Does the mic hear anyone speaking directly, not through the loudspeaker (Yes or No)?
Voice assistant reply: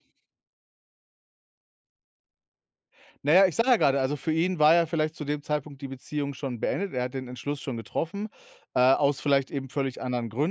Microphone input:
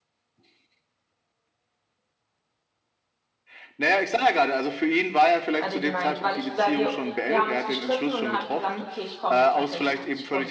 Yes